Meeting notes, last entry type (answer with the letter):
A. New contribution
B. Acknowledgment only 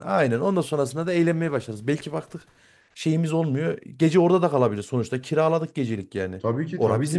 A